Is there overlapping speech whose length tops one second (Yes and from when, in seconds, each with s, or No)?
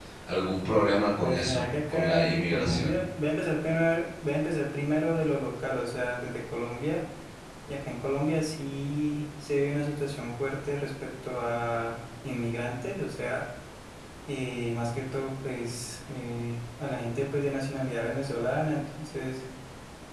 Yes, from 1.2 s